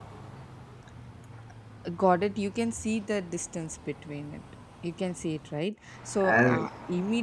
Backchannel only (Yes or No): Yes